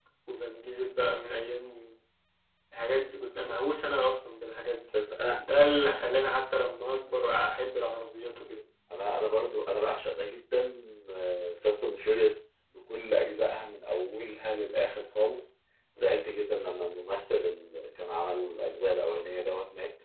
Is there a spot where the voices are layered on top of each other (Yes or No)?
No